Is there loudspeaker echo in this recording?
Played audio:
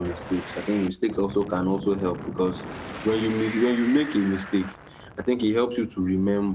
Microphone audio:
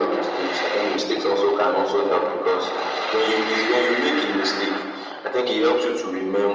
Yes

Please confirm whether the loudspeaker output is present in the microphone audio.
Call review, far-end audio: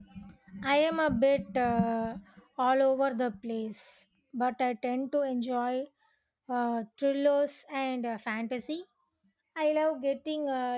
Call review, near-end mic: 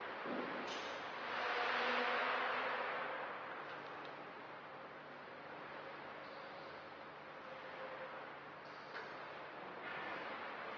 No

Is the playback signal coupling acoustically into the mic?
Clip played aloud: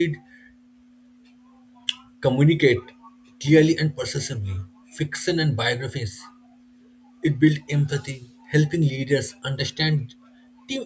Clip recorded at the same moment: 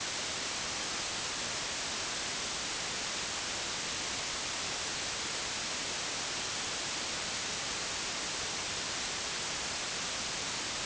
No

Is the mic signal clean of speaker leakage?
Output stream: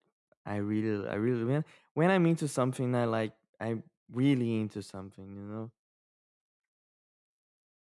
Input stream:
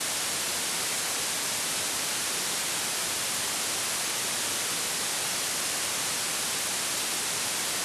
Yes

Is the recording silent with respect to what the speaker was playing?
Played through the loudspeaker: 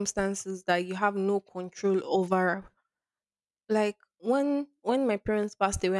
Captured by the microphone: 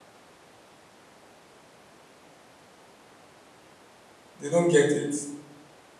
Yes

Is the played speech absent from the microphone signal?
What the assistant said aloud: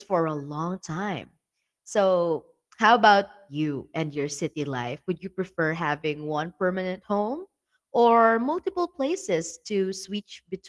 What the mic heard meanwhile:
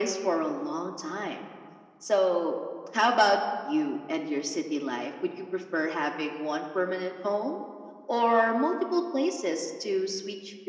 No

